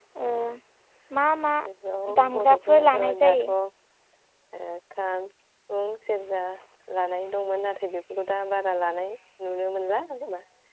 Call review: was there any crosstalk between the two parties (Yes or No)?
Yes